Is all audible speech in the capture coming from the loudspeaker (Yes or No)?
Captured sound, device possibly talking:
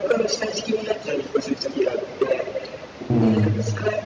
No